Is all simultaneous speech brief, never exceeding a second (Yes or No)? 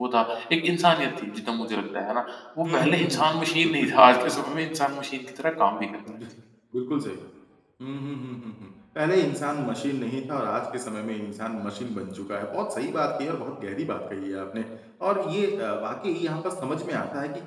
No